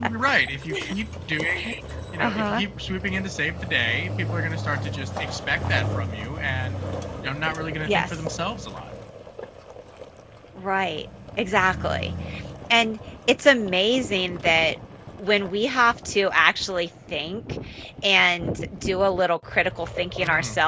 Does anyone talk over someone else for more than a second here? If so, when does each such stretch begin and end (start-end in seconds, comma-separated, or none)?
none